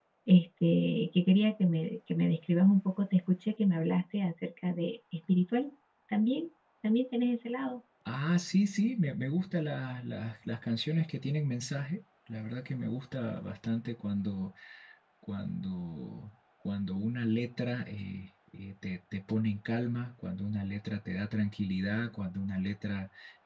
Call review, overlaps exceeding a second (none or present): none